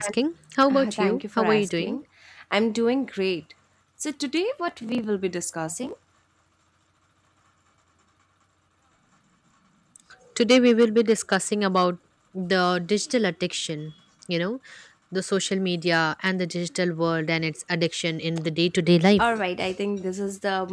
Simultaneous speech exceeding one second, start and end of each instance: 0.7-2.0

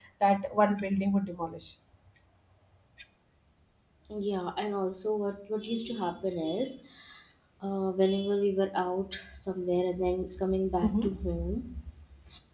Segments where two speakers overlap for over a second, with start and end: none

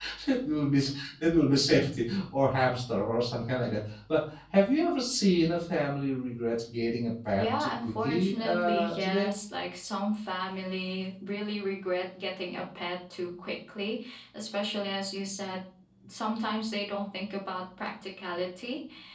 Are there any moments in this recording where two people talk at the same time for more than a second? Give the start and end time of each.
7.3-9.3

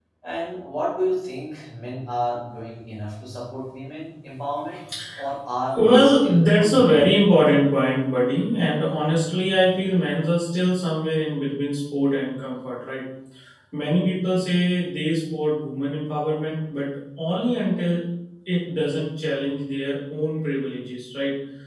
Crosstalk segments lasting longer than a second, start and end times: 5.8-7.1

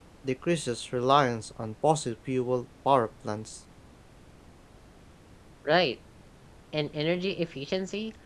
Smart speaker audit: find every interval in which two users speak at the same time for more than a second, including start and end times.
none

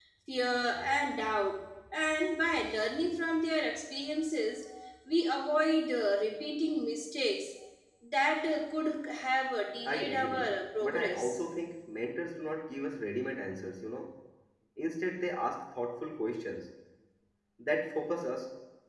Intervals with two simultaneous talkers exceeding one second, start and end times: 9.8-11.4

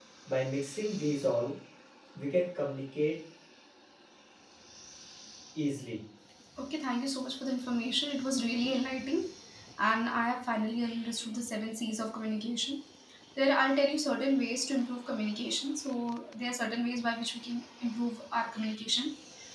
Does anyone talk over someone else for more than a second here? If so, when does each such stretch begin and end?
none

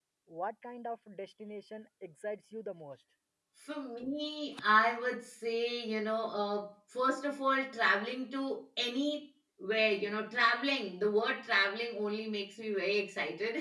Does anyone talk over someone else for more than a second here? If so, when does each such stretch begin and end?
none

